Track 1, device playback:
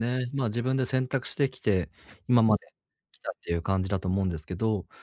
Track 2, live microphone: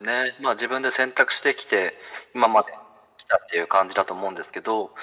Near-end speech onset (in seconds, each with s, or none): none